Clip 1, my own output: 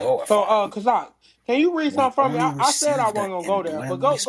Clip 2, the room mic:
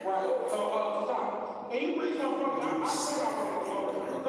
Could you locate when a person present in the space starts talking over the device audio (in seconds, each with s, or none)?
none